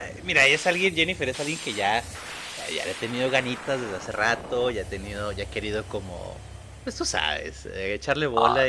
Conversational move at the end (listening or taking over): listening